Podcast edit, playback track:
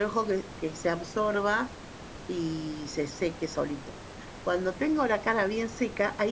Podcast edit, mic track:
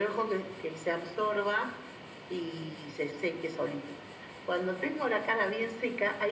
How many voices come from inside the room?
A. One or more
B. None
B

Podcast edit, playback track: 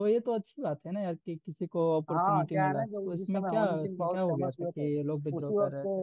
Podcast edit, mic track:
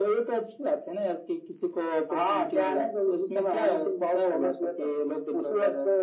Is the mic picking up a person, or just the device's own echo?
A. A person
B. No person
B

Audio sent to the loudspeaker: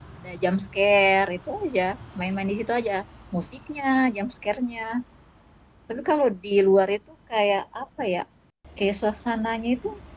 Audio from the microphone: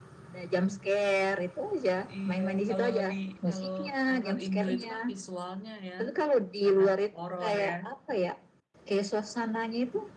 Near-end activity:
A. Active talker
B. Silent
A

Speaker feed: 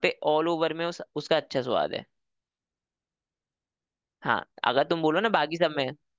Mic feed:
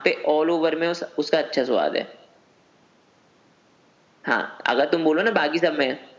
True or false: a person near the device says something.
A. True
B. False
B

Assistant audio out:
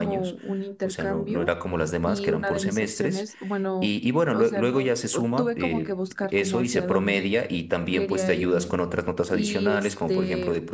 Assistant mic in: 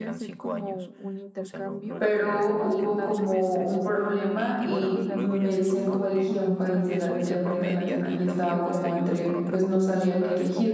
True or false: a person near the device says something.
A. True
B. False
A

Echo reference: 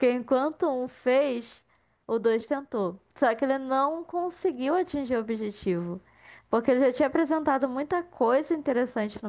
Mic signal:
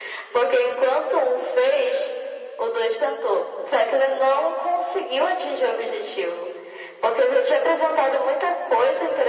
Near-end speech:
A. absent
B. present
A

